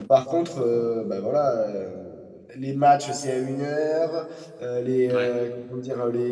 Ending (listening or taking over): listening